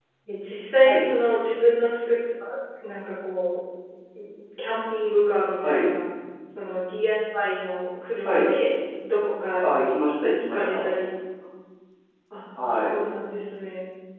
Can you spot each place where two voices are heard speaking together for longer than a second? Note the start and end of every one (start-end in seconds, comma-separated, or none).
none